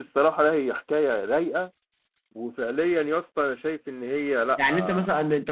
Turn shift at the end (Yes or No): Yes